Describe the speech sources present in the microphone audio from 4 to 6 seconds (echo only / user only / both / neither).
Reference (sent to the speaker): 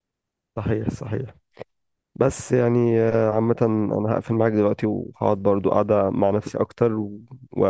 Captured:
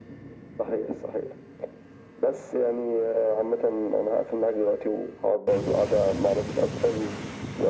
echo only